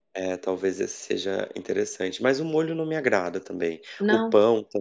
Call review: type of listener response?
listening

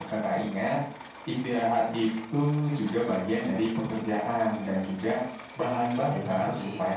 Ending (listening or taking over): listening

